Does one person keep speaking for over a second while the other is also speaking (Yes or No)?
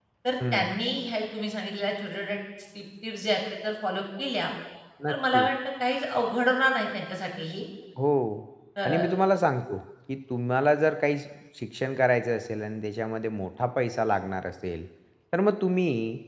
No